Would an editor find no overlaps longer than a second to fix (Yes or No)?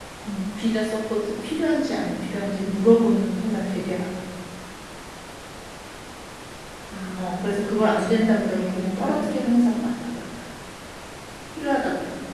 No